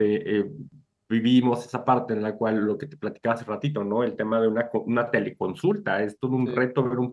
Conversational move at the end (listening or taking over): listening